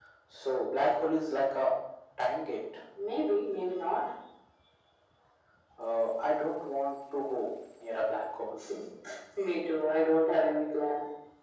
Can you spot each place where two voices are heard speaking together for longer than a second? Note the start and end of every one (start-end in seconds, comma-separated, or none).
none